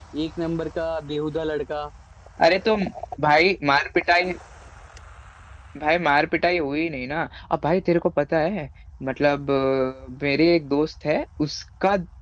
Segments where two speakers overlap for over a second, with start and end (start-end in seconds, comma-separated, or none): none